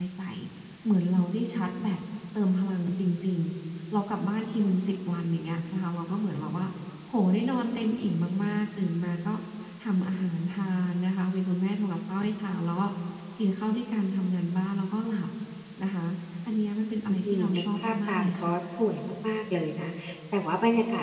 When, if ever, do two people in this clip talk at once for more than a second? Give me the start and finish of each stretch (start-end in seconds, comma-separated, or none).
17.1-18.5